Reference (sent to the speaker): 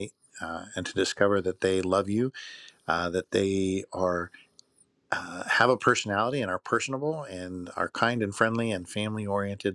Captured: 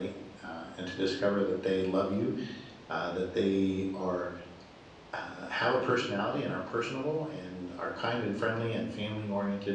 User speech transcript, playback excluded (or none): none